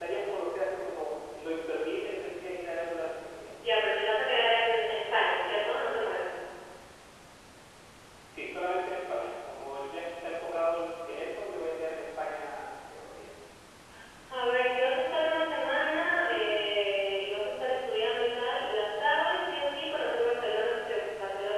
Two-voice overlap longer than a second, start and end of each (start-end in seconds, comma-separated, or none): none